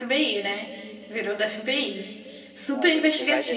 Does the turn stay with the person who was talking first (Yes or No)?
No